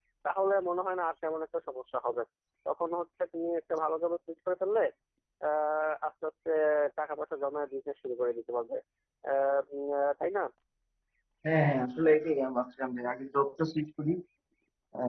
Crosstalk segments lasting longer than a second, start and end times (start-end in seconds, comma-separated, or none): none